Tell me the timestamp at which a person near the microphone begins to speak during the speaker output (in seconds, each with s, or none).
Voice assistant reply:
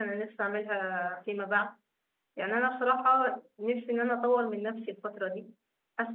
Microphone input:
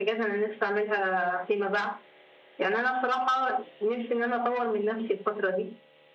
none